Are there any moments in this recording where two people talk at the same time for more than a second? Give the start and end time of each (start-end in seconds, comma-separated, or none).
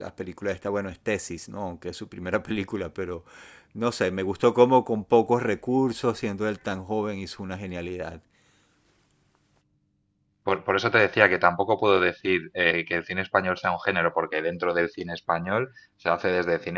none